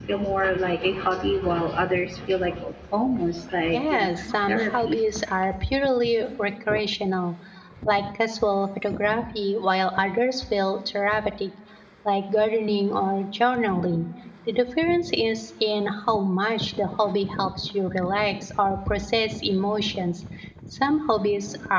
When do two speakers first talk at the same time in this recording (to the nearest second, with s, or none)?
4 s